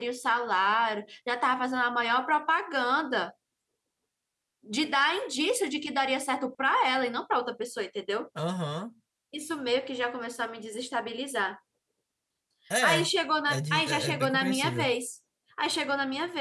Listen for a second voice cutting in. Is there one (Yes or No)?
Yes